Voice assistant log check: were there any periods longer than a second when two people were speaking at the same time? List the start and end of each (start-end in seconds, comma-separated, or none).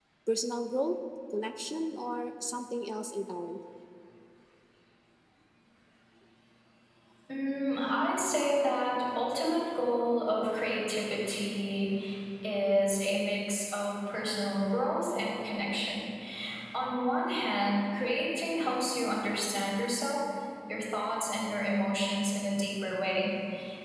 none